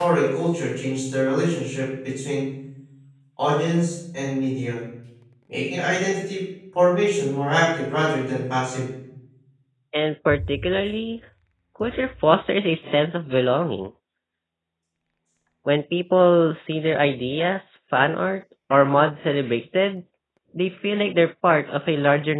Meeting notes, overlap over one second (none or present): none